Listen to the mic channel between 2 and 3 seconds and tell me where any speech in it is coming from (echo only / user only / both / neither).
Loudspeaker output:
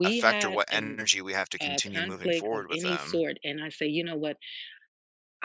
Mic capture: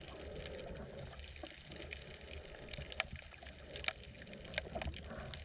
neither